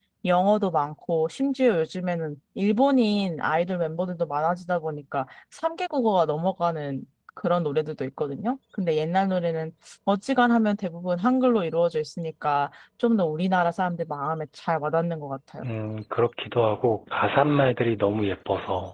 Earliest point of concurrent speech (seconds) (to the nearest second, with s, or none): none